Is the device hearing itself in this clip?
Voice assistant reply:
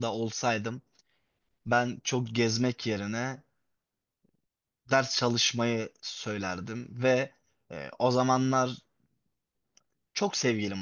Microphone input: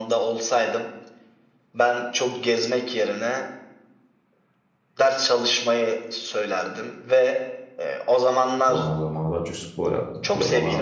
Yes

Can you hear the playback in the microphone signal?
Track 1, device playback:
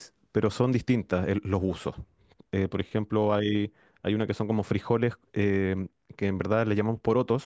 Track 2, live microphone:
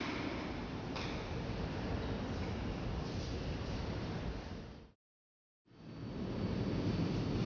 No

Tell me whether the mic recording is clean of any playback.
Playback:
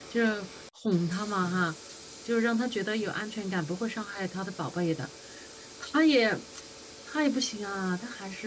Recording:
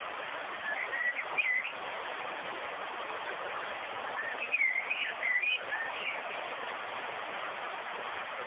Yes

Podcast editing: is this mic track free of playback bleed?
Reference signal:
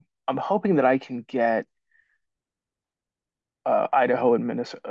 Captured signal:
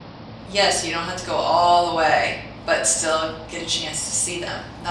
Yes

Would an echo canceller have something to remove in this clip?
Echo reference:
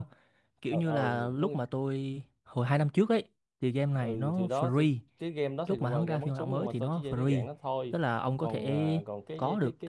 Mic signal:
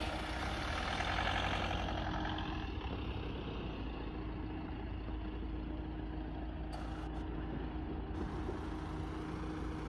No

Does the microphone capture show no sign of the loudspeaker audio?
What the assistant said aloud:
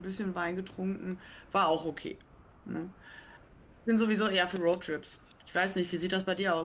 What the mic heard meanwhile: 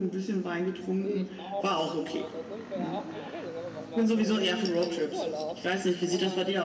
No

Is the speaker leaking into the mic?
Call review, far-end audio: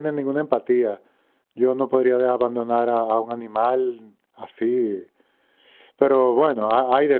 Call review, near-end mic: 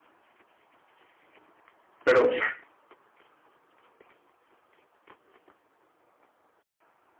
No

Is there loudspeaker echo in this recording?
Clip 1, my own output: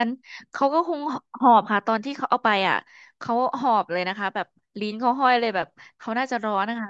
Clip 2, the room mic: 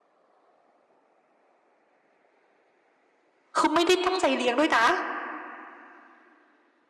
No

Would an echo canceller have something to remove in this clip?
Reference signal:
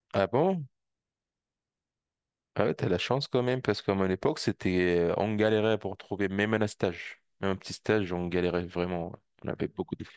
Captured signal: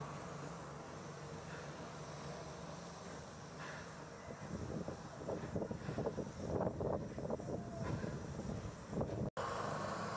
No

